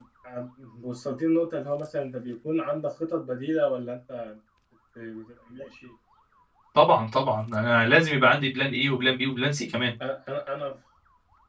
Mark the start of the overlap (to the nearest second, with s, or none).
none